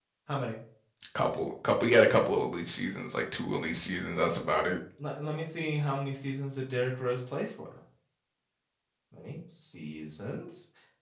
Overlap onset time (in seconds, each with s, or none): none